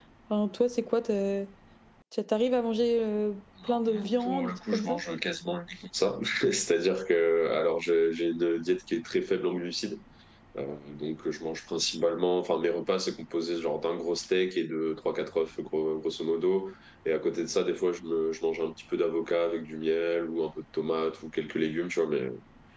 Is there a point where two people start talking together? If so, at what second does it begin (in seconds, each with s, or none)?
3.6 s